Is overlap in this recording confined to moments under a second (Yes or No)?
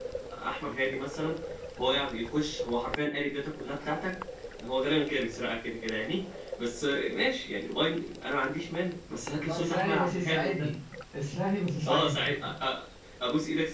No